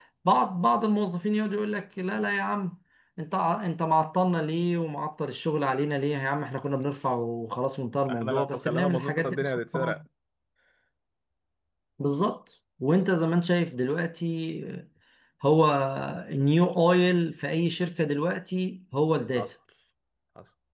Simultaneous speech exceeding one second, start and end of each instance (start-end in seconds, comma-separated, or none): 8.1-10.0